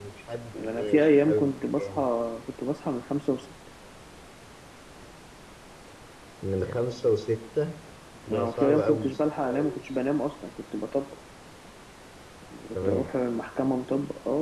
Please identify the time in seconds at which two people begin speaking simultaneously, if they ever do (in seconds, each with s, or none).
0.6 s